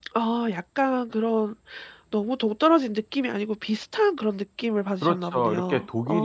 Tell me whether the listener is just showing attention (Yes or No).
No